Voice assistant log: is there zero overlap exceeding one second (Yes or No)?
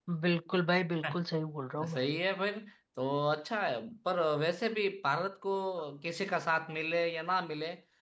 Yes